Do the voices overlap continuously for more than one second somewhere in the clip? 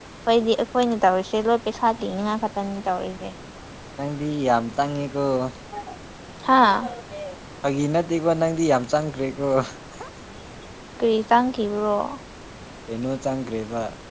No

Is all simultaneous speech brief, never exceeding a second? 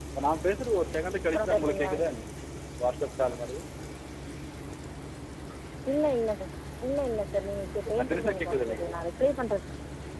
No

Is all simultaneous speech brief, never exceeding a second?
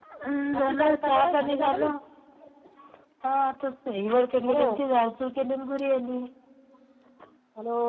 No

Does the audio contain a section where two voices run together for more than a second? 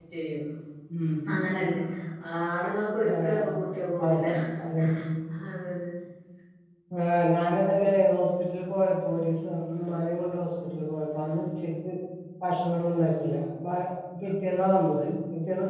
No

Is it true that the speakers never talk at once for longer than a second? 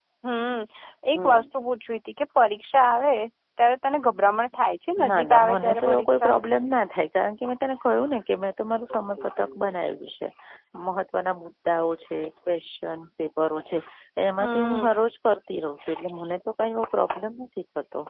No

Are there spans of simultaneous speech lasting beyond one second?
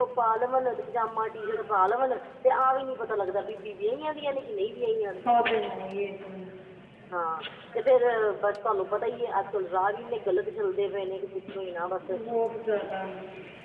No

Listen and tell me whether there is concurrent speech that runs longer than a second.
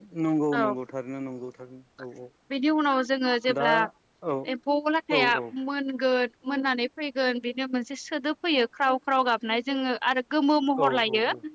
No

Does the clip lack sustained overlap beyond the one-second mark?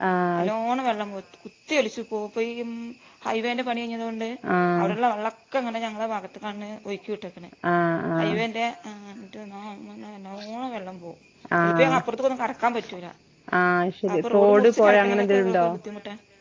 No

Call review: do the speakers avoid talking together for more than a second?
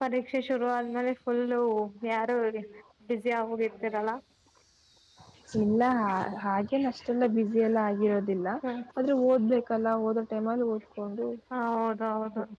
Yes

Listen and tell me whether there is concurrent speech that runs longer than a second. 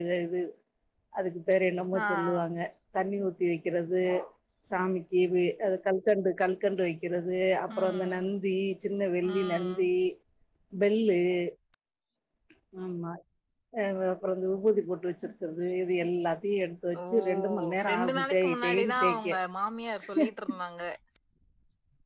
Yes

